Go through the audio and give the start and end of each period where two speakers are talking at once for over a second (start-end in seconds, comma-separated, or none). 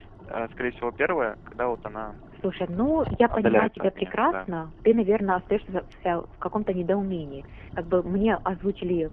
3.3-4.5